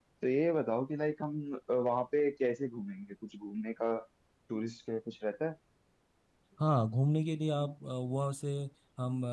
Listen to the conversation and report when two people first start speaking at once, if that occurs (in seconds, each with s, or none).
none